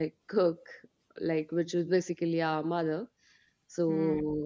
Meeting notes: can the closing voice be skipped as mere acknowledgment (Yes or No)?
Yes